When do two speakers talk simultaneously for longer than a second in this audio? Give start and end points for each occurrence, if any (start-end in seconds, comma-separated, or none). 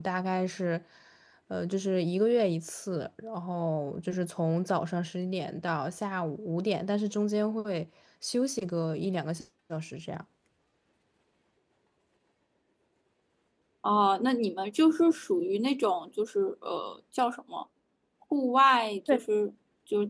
none